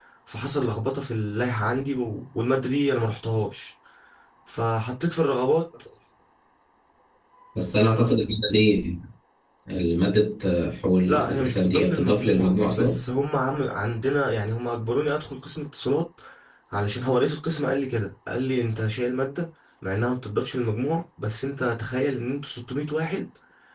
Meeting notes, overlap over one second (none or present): present